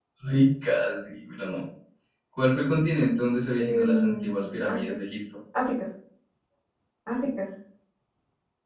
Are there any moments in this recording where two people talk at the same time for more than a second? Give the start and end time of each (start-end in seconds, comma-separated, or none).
3.6-5.0